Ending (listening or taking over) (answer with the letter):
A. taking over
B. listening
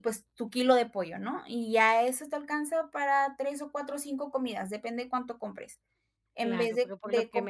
A